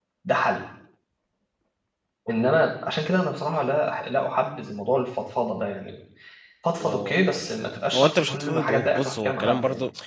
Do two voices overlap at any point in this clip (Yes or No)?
Yes